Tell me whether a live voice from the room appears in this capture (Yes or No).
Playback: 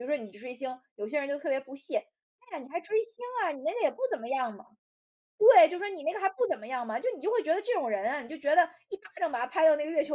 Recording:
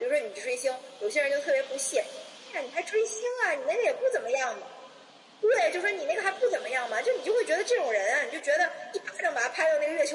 No